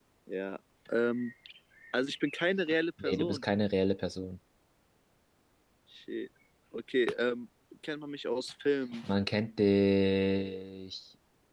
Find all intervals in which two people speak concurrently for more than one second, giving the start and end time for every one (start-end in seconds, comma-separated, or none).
none